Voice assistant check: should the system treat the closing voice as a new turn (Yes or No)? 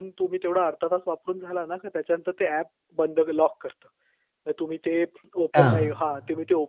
No